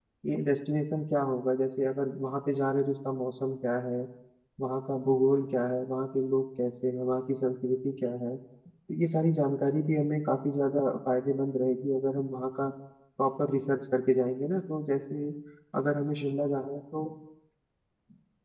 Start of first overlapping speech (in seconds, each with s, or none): none